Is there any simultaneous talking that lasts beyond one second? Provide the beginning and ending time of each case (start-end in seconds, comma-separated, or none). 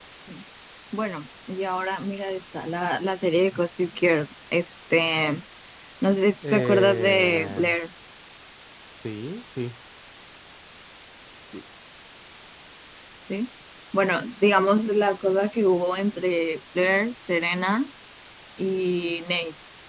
6.4-7.6